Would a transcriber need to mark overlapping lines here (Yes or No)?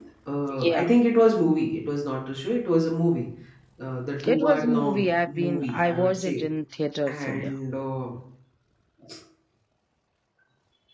Yes